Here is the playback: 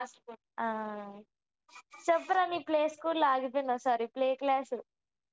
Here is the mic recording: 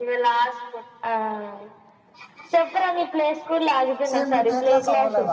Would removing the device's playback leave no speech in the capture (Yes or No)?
No